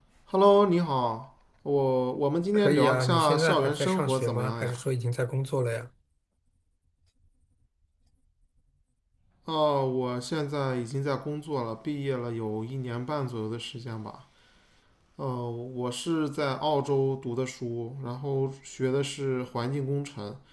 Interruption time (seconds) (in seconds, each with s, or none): 2.5 s